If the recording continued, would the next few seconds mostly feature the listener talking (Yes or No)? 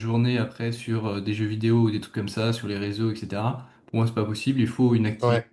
No